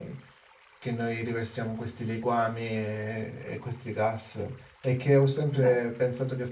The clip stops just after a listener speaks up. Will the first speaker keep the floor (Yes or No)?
Yes